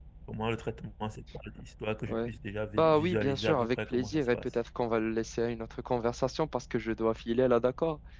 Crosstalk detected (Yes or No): Yes